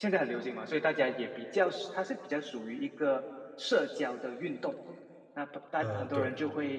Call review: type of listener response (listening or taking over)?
listening